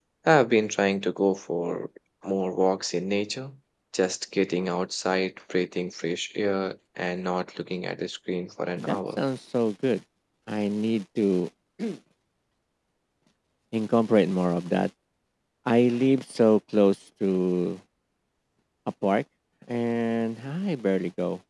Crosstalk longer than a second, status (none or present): none